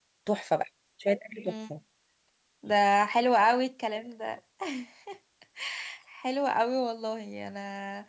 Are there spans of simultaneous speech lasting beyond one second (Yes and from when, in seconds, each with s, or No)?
No